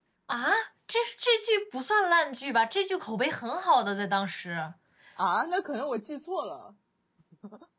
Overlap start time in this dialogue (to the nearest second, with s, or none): none